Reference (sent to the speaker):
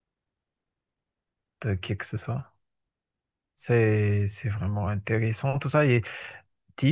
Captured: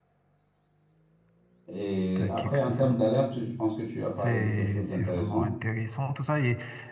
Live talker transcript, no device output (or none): Et après, en termes d'alerte, je pense que tu as parlé de quelque chose d'intéressant.